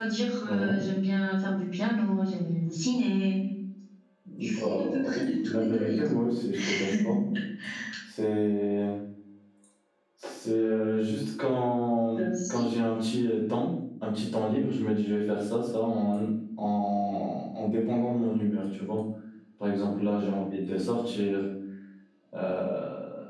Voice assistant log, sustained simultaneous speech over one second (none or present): present